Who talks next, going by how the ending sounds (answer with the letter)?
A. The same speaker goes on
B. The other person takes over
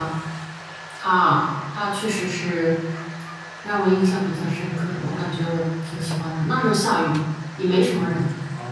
B